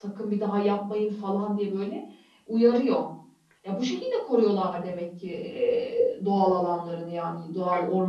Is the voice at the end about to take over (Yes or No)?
Yes